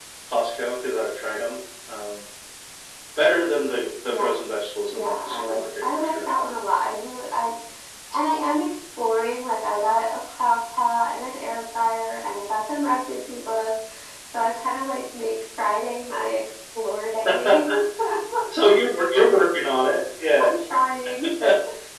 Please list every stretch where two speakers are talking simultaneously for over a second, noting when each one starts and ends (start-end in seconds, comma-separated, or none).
4.9-6.3